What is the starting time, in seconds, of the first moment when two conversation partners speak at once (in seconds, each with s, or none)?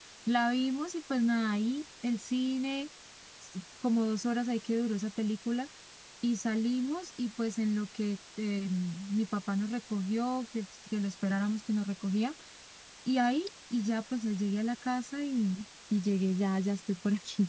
none